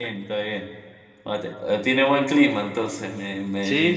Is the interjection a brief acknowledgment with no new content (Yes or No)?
No